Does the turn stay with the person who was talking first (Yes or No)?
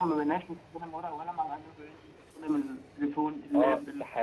No